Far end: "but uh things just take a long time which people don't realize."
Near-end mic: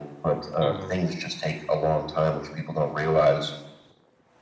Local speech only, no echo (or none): Mhm.